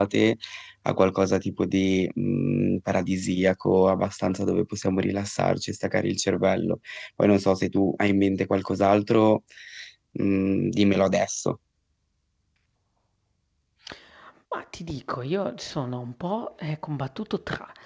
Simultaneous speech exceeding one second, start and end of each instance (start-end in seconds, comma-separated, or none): none